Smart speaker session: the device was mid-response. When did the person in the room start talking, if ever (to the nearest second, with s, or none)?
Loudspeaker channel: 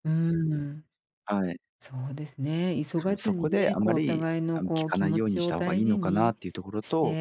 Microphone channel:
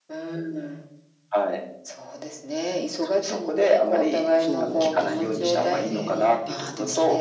4 s